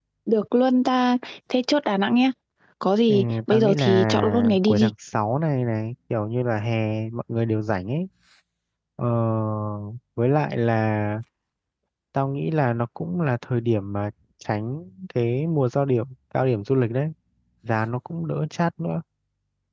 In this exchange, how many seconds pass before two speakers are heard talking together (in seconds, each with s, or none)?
3.1 s